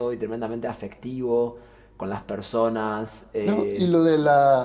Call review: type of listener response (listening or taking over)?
taking over